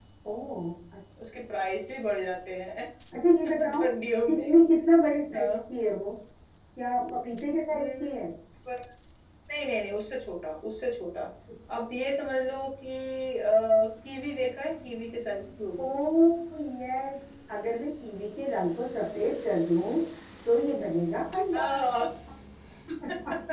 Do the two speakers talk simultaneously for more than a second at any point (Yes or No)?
No